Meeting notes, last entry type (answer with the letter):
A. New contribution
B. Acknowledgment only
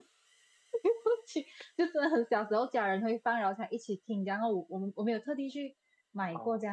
B